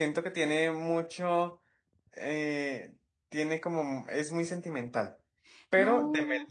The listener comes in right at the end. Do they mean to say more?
No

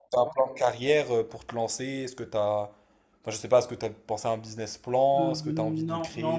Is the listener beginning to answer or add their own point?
Yes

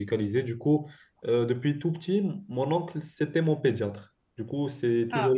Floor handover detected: No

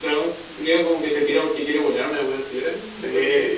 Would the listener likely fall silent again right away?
No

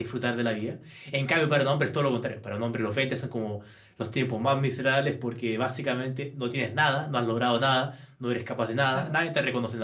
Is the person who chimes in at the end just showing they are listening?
Yes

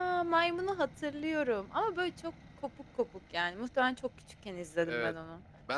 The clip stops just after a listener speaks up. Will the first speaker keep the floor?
No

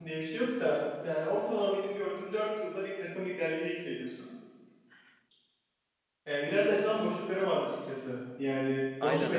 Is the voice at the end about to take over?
No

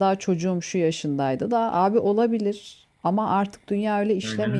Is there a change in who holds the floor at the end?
Yes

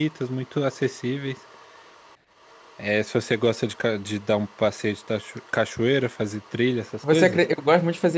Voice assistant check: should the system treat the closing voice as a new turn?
Yes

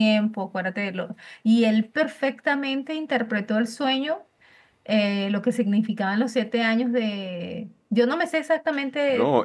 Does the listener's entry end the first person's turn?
Yes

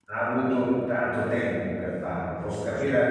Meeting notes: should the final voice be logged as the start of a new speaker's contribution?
No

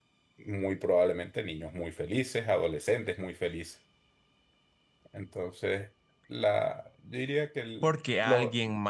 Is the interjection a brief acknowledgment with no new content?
No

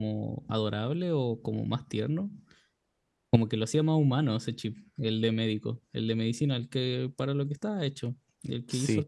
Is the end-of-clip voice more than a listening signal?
Yes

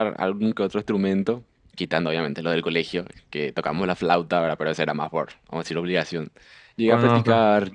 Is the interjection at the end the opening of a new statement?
No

